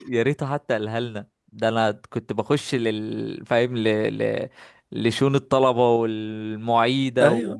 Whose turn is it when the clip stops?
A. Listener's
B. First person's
B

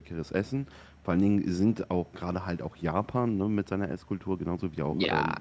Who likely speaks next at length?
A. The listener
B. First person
B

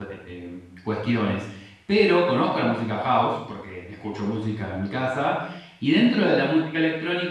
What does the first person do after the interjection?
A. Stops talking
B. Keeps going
B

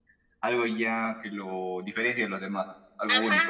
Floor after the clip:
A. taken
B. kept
A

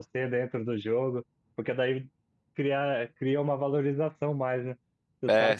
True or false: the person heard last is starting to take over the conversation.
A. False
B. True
A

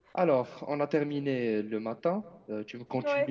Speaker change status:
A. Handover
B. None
B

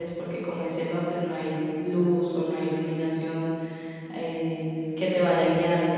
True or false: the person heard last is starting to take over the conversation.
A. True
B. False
B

